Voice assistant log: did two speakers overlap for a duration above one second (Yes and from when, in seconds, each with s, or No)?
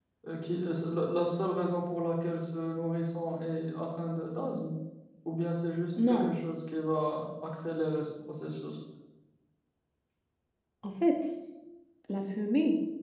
No